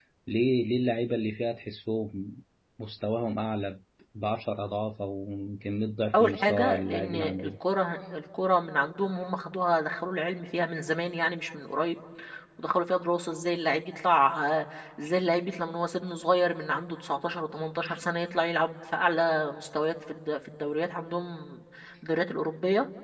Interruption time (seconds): 6.1 s

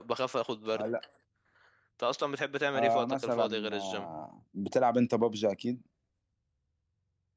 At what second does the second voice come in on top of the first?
2.8 s

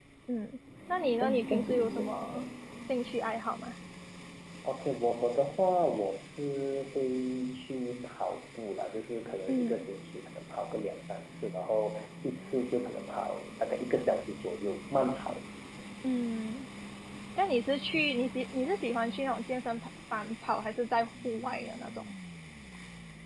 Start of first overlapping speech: 1.2 s

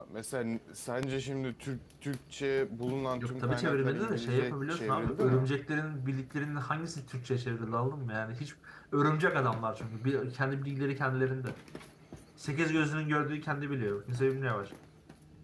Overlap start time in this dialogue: 3.2 s

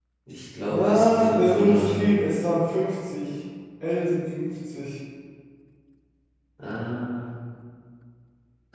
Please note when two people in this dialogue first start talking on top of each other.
0.7 s

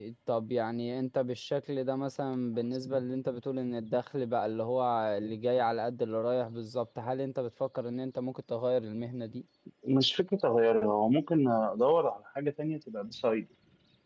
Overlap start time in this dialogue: none

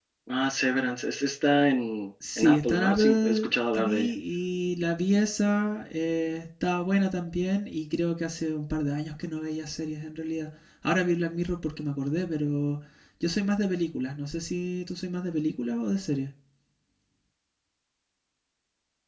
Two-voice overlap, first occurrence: 2.2 s

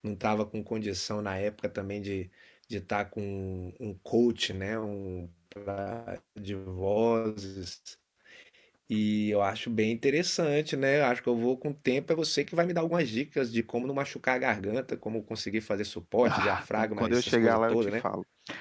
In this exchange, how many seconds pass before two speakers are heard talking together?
16.2 s

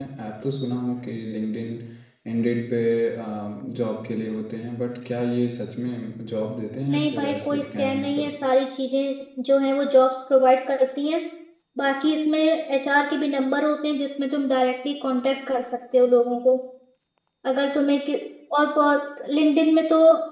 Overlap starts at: 6.9 s

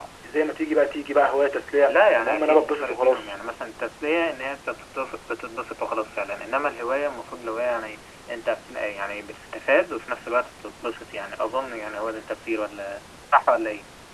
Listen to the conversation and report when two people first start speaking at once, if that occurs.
1.9 s

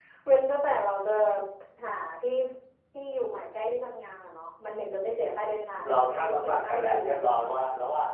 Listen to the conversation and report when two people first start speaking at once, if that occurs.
5.8 s

